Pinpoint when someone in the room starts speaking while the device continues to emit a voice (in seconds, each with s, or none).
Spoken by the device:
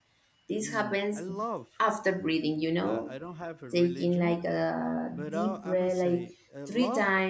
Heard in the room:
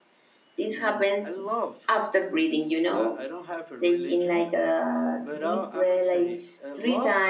none